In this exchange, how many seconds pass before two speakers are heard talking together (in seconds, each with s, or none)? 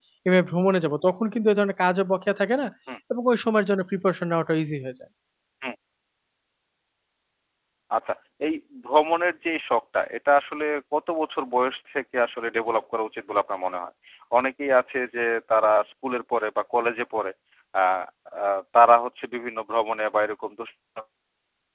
none